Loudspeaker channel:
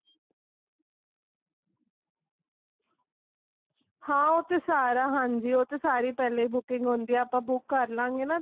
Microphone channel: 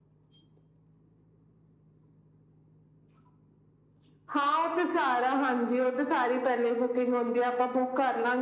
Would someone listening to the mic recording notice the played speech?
Yes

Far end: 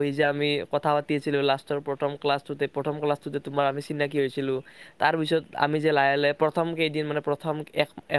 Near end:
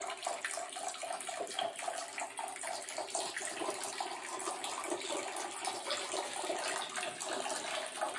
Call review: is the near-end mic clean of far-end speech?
Yes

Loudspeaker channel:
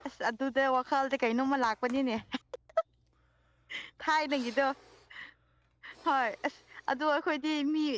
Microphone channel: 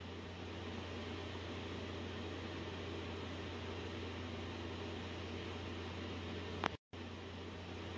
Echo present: No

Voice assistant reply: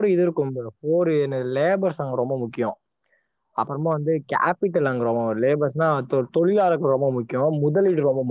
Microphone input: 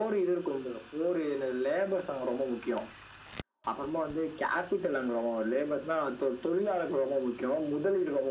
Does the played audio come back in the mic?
Yes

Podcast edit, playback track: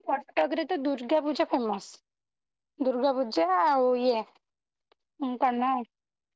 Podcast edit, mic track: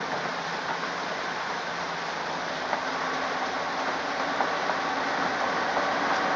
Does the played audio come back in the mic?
No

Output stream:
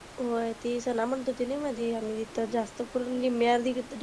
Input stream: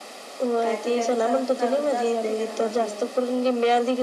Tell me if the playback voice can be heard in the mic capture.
Yes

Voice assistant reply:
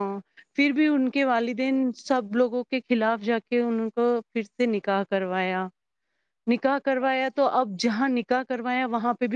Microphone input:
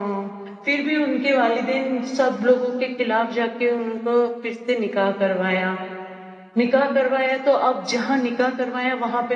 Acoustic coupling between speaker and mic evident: Yes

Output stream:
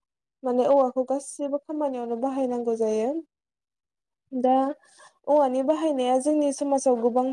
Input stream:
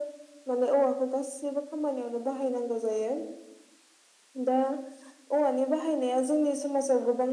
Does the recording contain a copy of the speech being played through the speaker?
Yes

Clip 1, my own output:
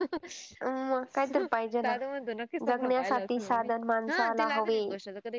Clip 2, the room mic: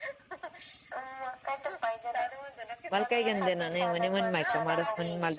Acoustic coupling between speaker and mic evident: Yes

